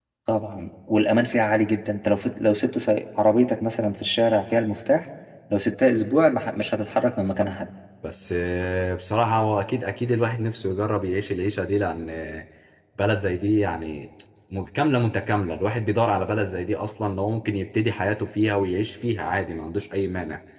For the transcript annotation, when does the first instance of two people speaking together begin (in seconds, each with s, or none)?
none